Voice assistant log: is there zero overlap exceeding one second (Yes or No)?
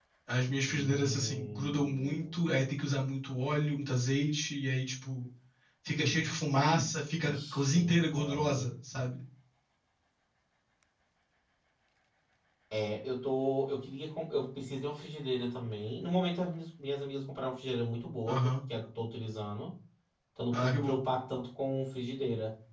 No